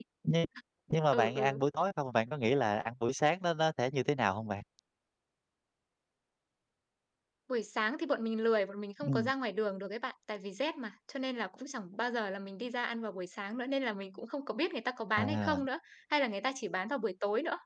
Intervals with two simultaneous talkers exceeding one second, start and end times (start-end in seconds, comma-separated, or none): none